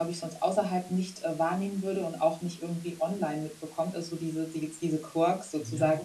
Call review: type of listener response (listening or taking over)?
listening